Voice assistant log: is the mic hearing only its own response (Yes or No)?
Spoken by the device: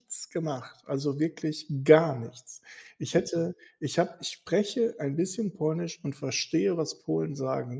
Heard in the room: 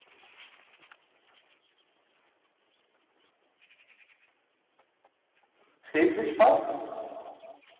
No